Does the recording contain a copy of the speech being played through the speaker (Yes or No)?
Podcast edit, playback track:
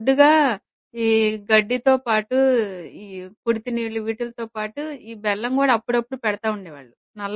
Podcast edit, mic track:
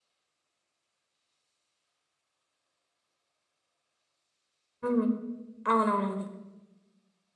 No